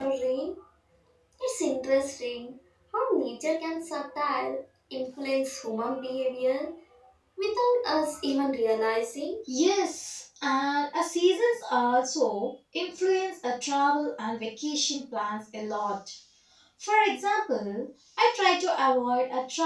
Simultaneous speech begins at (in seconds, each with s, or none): none